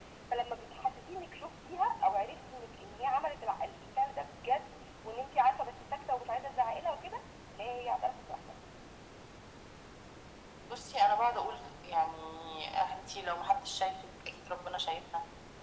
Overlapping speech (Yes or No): No